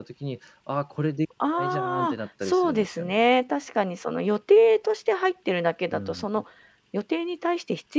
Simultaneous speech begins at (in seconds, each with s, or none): 1.5 s